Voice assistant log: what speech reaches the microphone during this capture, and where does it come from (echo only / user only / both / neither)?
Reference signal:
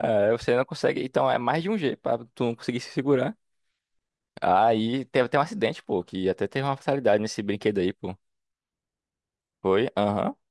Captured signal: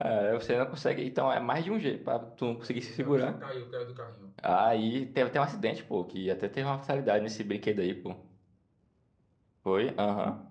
both